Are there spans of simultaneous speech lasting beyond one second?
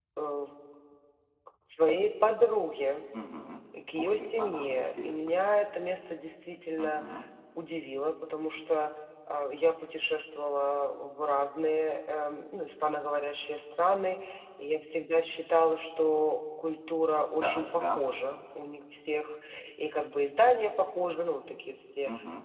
Yes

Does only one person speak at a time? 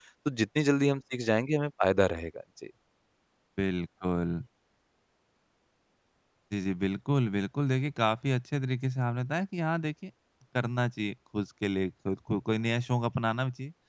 Yes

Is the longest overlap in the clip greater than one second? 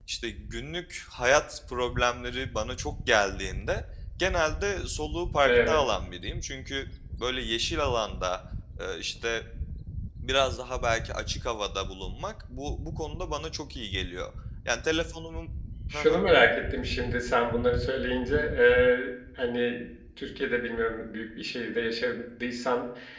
No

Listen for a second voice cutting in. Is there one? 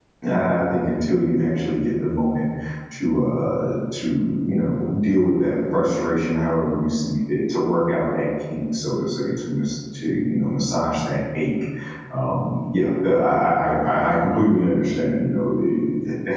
No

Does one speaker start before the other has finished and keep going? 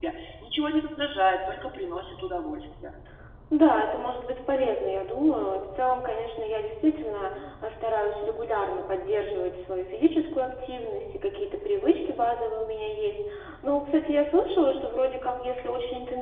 No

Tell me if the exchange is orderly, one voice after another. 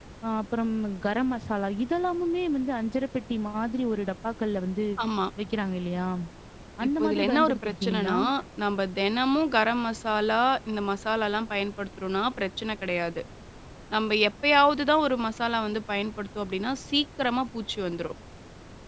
No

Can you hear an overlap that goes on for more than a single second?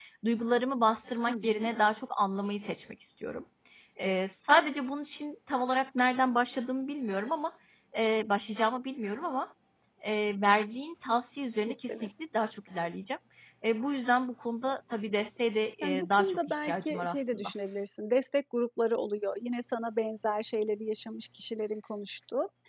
Yes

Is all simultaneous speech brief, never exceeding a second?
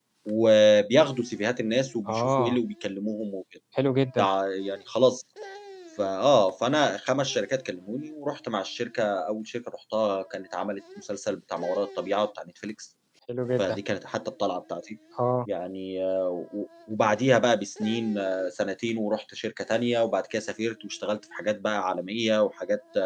Yes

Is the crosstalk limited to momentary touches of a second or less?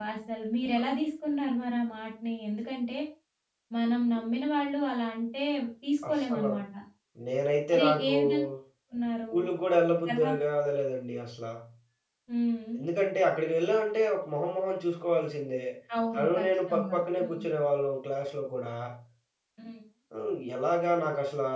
No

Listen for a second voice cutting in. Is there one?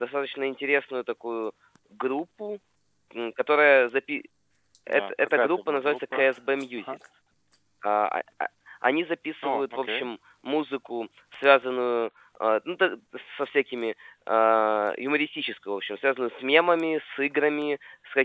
Yes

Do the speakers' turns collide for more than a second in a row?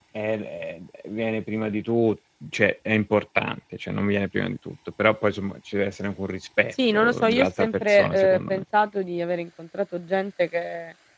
Yes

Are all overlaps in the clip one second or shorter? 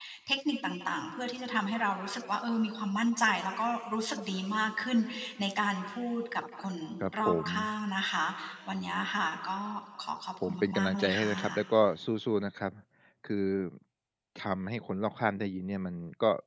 No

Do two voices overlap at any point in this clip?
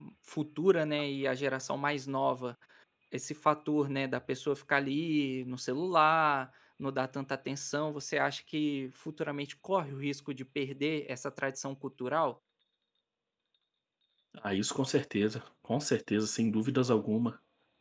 No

